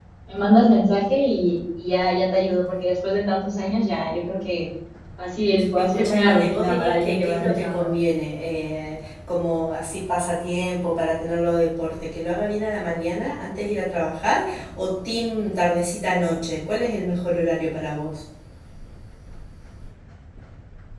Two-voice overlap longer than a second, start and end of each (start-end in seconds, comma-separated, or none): 5.8-7.9